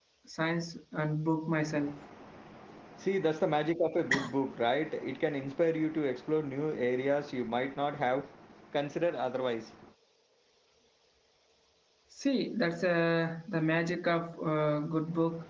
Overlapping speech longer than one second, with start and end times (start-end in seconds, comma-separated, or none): none